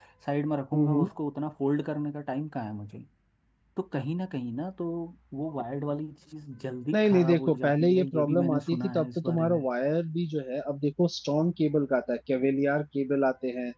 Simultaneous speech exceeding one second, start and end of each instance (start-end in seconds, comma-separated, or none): 6.9-9.6